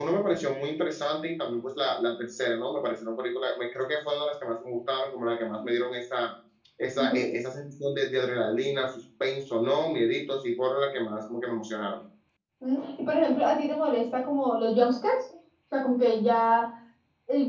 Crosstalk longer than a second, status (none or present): none